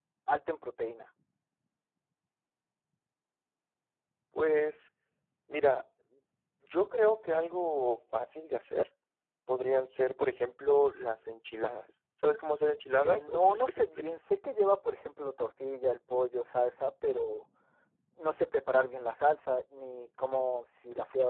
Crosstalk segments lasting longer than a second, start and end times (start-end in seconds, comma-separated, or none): 13.0-14.2